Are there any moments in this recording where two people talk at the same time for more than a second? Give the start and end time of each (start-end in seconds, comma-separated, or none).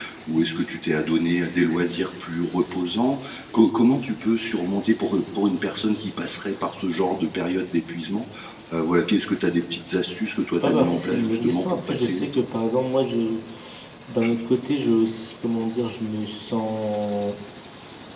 10.6-12.4